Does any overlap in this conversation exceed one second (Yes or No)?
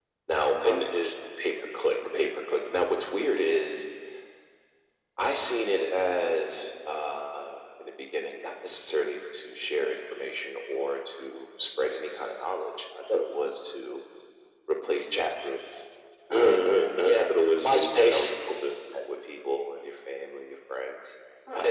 Yes